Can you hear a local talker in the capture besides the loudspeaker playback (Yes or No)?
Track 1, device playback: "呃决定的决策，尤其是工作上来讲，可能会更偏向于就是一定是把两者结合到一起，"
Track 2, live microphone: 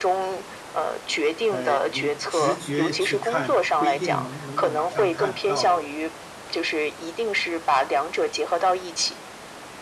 Yes